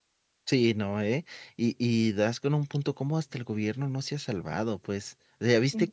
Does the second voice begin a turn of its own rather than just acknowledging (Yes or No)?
No